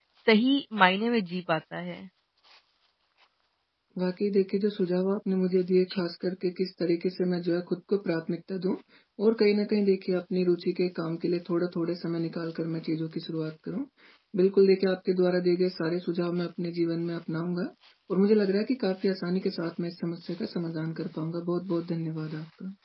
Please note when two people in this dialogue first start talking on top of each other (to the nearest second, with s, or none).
none